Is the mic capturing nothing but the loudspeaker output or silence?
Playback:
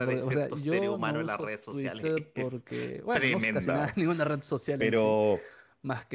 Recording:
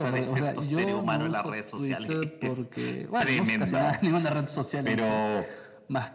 Yes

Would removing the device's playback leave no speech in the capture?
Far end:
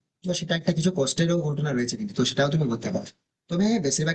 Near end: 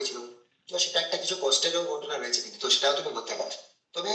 Yes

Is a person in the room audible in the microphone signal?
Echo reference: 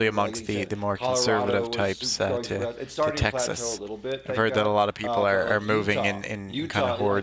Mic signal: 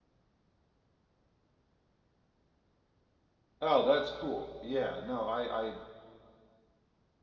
Yes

